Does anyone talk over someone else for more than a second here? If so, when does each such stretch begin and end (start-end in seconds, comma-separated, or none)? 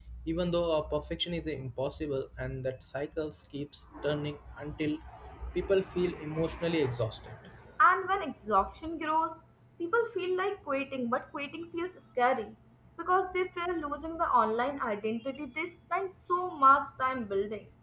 none